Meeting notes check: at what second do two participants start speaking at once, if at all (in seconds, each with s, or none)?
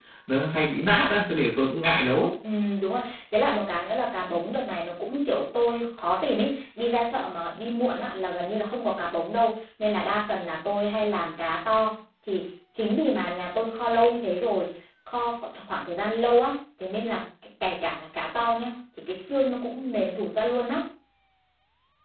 none